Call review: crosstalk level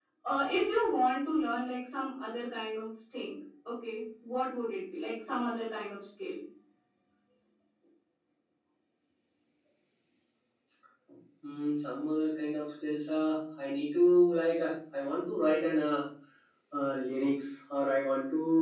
none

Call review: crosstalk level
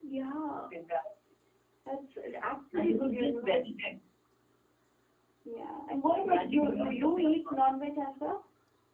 present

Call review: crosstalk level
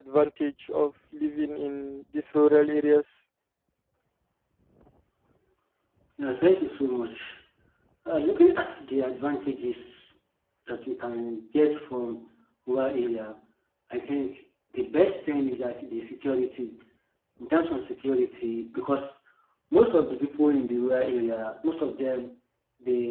none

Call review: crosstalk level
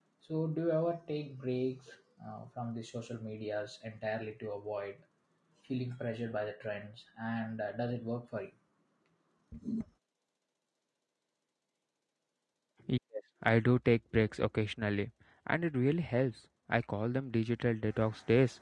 none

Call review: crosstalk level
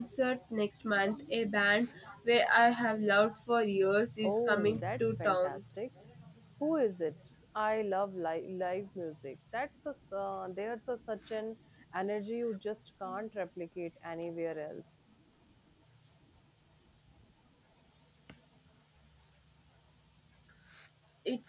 present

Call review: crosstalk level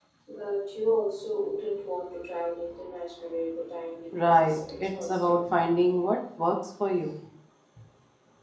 present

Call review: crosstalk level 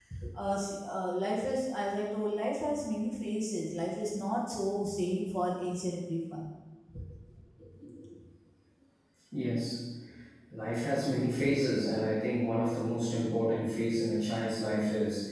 none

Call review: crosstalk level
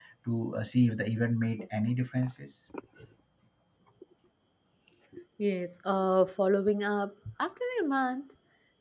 none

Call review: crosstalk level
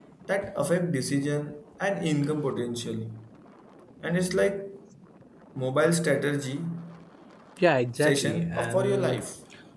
present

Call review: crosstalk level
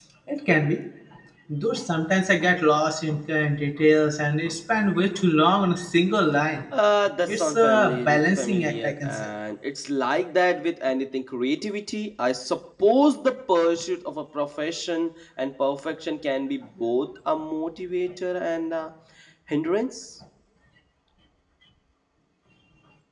present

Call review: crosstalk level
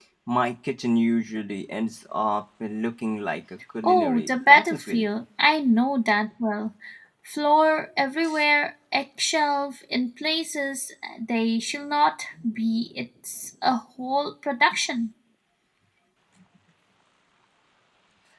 present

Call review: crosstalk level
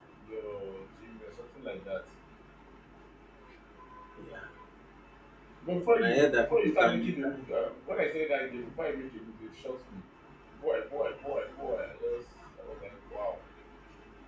present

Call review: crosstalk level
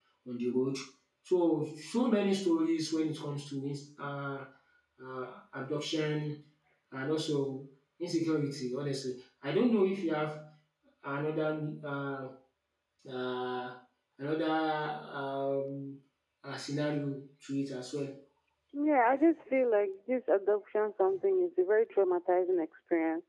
none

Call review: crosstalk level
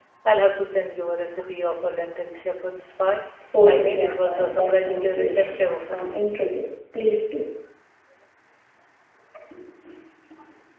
present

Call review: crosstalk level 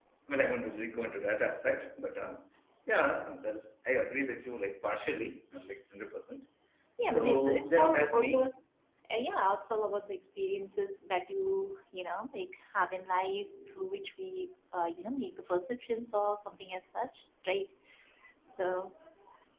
present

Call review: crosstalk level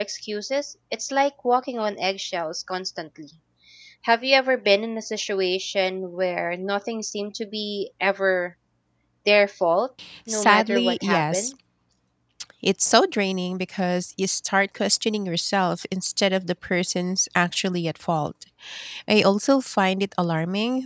present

